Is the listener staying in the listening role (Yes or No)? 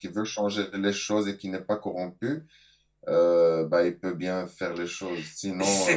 Yes